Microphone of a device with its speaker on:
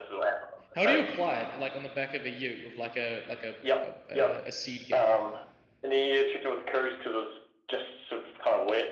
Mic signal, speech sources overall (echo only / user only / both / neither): both